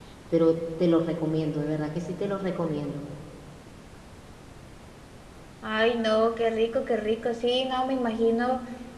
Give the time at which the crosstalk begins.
none

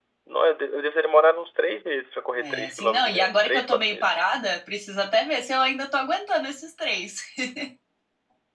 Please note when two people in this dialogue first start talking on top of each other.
2 s

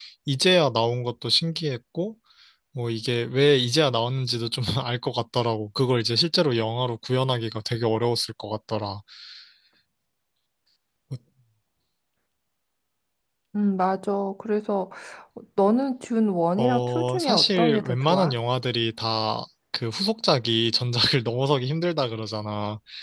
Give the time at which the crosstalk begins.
17 s

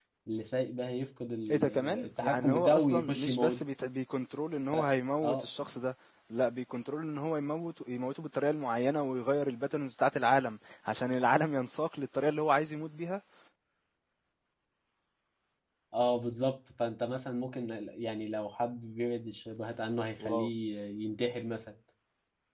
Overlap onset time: 2 s

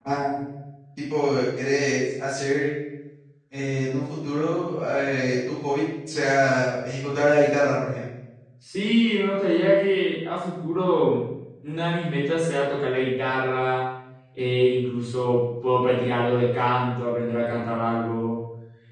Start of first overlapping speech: none

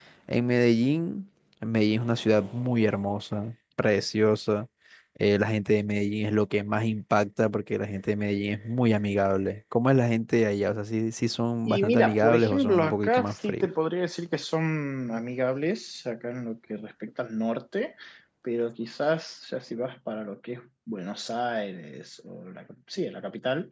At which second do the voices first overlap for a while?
12 s

